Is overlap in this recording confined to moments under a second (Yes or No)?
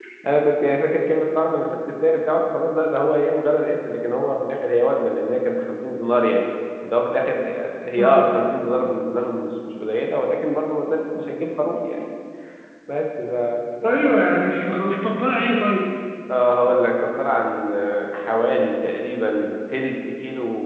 Yes